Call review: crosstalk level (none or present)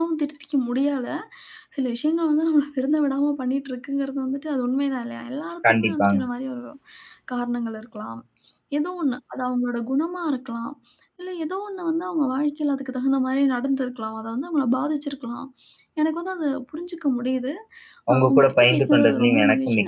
present